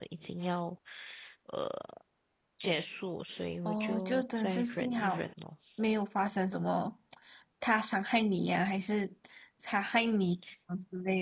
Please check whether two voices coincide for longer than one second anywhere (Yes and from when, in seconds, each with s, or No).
Yes, from 3.6 s